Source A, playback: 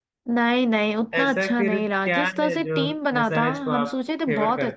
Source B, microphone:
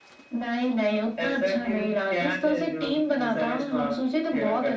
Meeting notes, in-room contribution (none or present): none